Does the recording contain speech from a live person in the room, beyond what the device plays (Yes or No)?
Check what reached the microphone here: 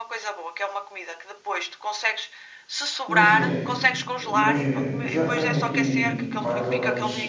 Yes